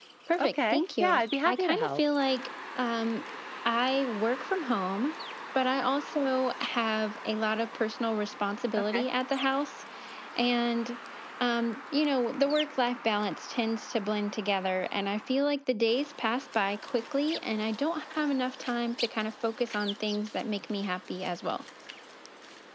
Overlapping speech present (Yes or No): Yes